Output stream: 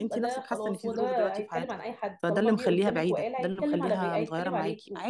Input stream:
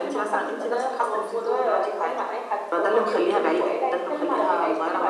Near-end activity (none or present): none